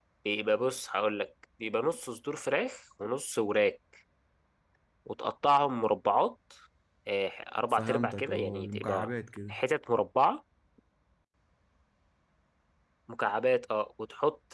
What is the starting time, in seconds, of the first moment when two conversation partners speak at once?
7.7 s

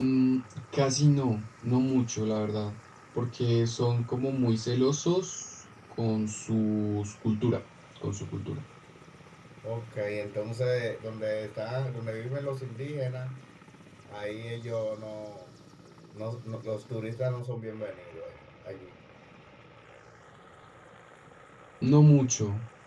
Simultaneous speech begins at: none

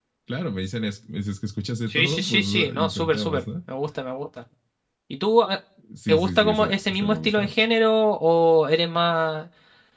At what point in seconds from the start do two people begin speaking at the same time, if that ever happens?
1.9 s

